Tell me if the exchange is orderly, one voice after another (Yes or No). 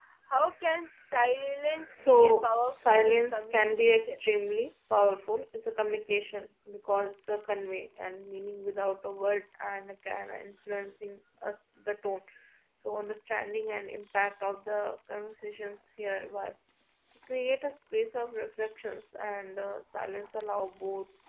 No